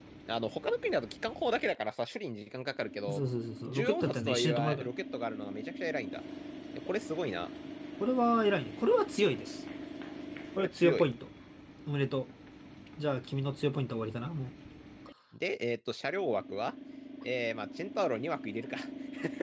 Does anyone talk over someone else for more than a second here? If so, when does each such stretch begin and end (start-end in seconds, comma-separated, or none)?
3.7-4.9